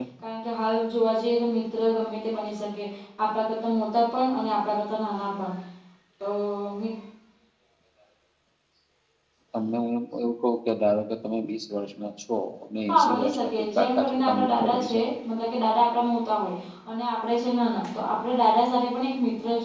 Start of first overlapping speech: 12.9 s

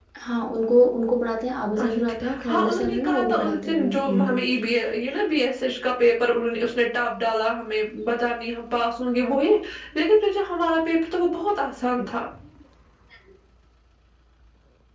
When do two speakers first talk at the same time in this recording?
1.8 s

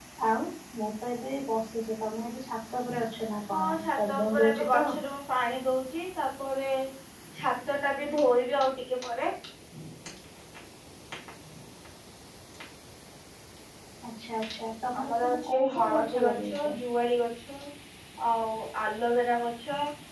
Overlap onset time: 3.5 s

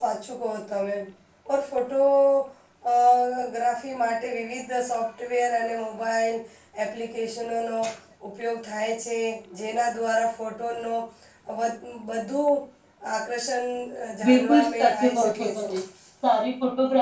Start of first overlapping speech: 14.3 s

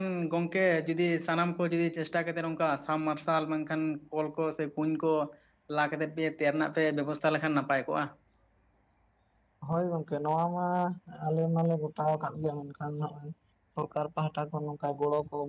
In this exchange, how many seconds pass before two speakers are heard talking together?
none

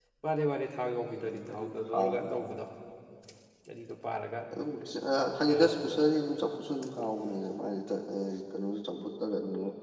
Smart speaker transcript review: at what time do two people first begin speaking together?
1.2 s

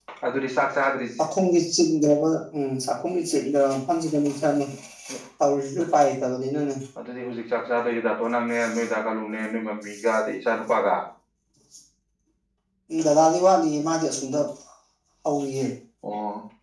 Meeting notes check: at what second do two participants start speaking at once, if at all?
none

